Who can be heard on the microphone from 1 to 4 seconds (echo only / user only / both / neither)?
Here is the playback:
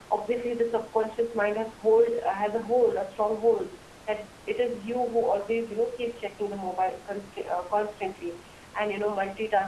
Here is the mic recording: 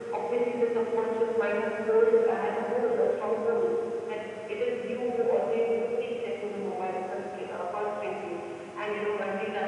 echo only